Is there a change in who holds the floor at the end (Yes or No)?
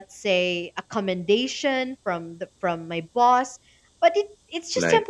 No